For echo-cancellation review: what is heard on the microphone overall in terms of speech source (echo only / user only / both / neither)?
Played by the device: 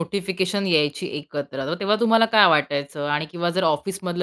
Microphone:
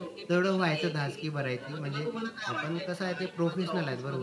both